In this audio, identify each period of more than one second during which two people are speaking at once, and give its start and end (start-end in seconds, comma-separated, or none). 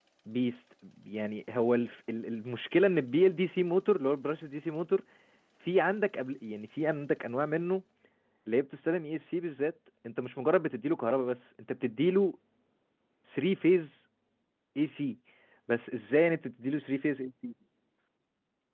none